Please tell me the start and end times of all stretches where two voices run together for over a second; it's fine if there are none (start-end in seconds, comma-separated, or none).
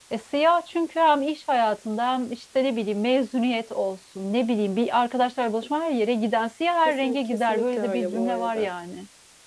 6.8-8.7